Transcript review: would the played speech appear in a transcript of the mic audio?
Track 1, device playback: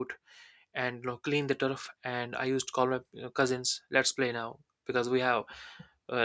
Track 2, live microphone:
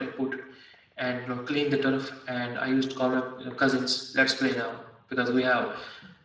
Yes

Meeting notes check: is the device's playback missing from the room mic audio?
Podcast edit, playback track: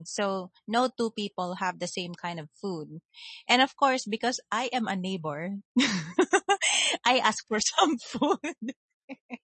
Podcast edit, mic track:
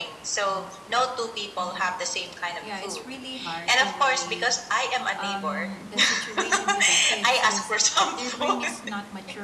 No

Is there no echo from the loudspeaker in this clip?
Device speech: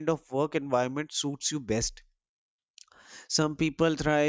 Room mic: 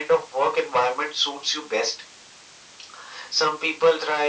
No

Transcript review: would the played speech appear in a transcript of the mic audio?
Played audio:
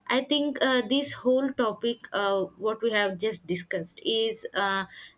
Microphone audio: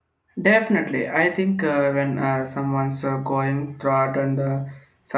No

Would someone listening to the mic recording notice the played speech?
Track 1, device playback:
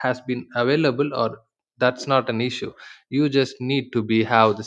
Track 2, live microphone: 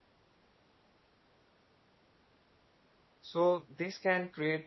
No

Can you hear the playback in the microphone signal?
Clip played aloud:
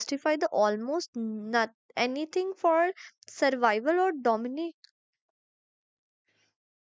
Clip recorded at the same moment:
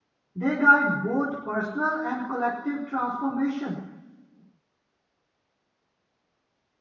No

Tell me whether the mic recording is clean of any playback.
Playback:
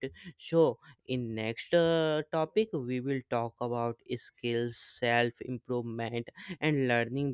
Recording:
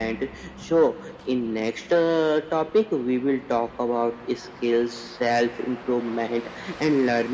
No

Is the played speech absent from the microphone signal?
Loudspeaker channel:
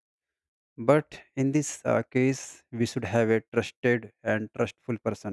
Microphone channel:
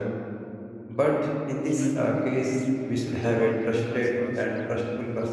No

